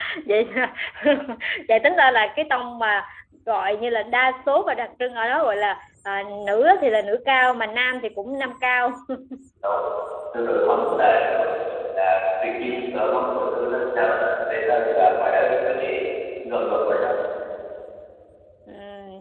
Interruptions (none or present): none